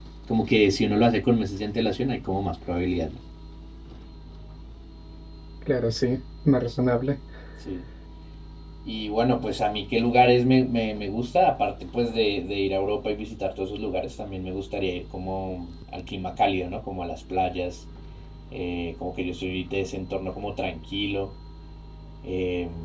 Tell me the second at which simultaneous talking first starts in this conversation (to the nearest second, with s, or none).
none